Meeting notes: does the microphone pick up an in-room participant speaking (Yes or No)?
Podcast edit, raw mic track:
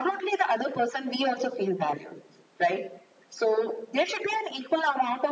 No